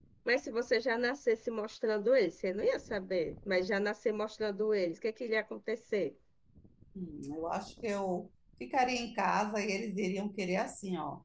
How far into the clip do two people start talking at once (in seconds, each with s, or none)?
none